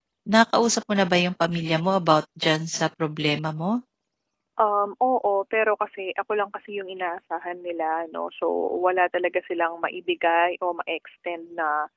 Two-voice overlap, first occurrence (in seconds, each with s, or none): none